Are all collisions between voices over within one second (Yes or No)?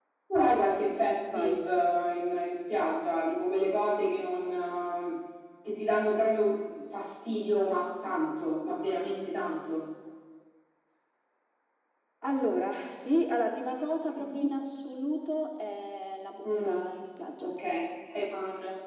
Yes